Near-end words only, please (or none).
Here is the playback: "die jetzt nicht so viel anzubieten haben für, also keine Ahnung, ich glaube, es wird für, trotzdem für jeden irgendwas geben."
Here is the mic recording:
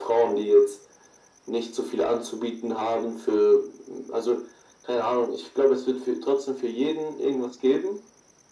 none